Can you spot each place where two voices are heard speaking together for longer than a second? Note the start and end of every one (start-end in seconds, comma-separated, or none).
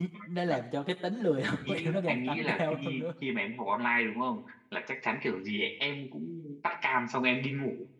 1.6-3.1